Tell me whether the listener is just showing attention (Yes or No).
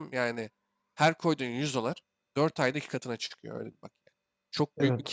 No